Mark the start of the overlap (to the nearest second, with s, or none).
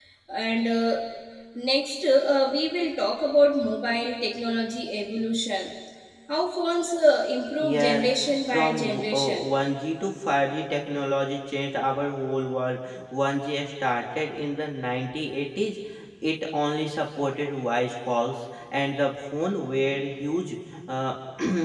8 s